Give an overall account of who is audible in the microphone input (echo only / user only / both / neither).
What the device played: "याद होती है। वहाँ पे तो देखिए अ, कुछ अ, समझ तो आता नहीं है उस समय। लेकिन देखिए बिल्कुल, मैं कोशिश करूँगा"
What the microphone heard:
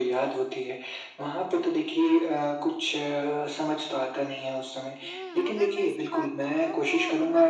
both